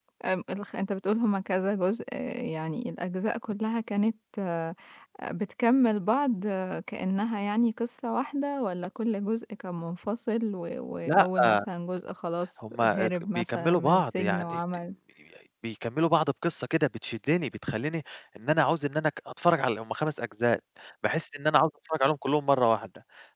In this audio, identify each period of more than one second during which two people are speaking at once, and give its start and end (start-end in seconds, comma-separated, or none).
12.7-14.6